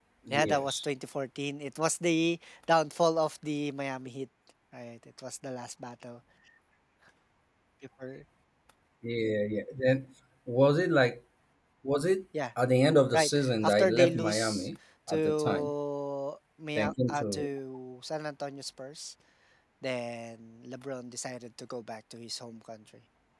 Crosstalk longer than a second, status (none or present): present